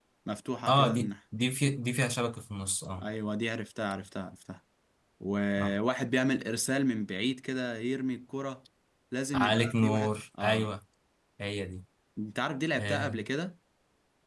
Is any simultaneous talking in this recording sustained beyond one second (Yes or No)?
Yes